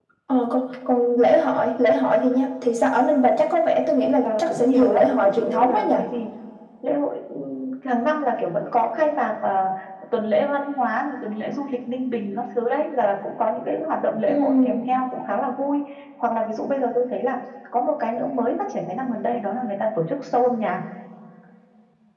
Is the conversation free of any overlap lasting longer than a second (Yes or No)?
No